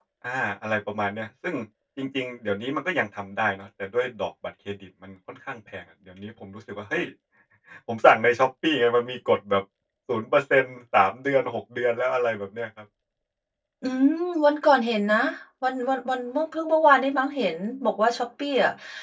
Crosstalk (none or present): none